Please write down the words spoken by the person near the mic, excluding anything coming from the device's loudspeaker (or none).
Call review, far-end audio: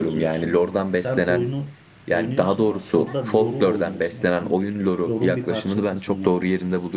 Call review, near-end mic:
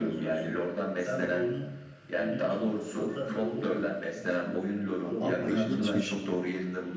Allah Allah ilginçmiş.